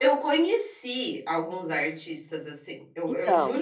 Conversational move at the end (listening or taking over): listening